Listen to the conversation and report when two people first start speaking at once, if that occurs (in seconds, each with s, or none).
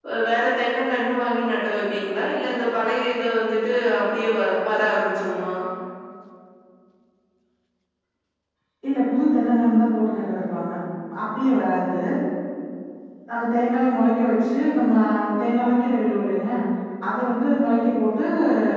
none